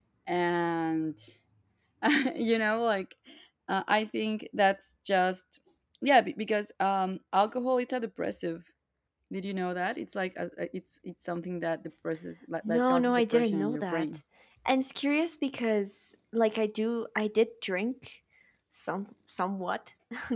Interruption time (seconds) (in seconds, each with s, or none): 12.6 s